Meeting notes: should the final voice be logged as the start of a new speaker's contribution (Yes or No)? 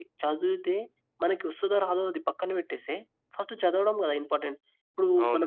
Yes